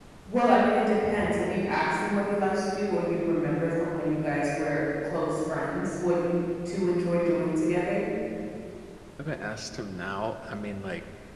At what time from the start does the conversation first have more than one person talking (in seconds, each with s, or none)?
none